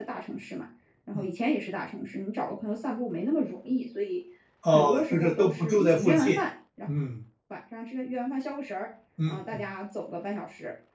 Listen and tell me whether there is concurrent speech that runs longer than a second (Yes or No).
Yes